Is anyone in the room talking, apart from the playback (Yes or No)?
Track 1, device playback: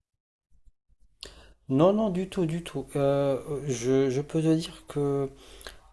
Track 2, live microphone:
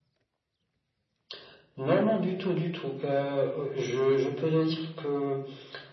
No